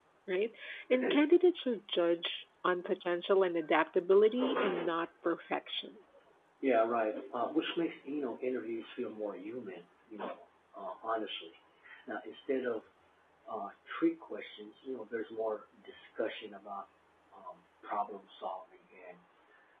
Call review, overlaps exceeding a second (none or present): none